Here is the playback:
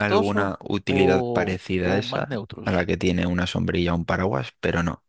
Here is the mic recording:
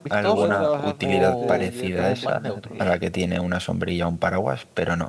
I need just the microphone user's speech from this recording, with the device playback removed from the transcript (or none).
puede trabajar este, directamente con la energía.